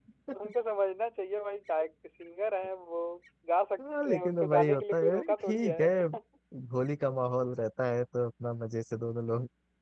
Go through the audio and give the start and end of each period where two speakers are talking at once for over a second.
4.0-5.9

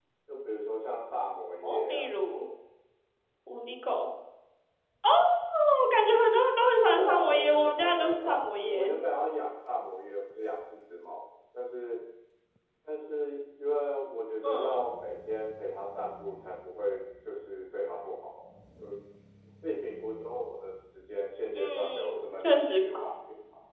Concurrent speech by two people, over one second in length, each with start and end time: 6.9-8.9, 21.6-22.8

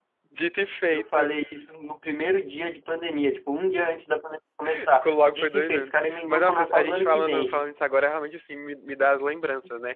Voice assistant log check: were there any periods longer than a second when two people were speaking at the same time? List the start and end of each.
4.9-7.8

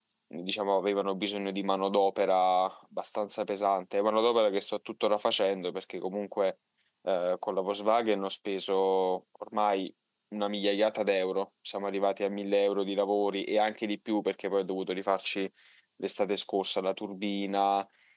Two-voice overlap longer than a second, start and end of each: none

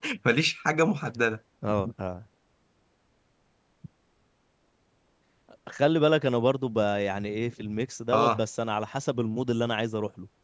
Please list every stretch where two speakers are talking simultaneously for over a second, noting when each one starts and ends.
none

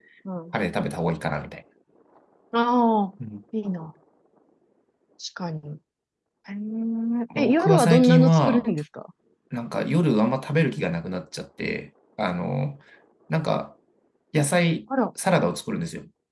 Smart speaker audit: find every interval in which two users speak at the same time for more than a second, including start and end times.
7.4-8.7

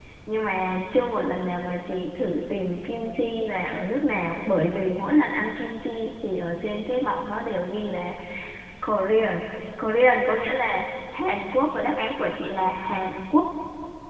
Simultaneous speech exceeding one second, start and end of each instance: none

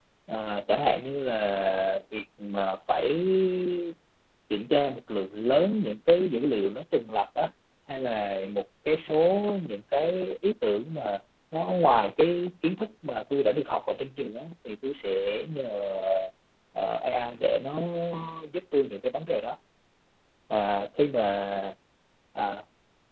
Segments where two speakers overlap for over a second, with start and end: none

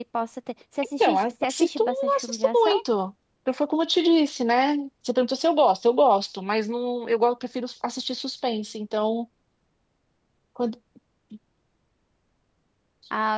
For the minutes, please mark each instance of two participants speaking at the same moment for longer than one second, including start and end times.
1.0-2.8

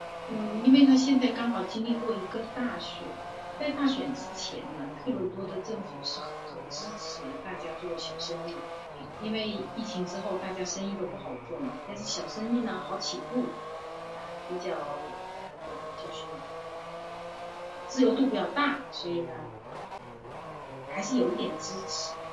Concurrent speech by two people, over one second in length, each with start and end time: none

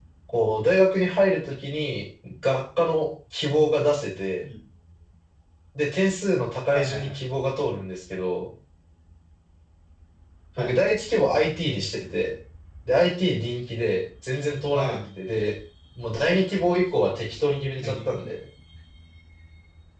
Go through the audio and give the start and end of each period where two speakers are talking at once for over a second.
none

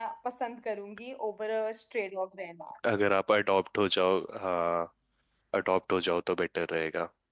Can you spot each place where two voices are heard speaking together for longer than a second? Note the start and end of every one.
none

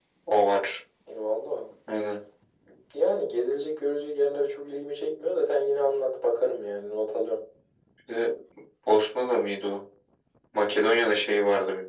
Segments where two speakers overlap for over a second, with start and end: none

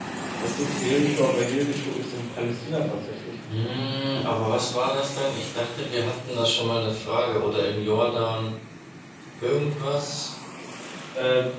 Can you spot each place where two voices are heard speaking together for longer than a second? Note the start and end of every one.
none

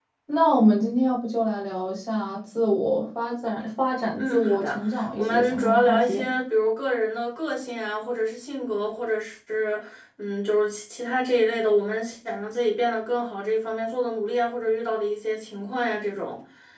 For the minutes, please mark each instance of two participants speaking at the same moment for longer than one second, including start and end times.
4.2-6.2

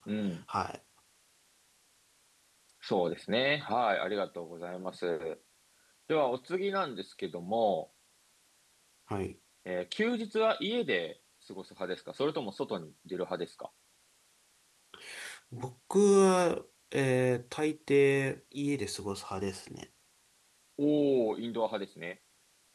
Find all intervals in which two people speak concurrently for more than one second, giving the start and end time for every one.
none

